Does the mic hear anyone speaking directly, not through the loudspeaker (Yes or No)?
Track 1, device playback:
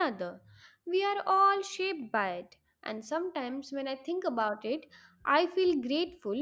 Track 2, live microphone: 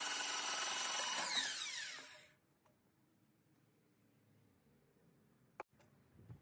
No